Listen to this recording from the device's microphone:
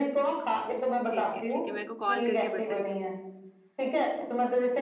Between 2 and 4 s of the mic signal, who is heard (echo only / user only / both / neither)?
both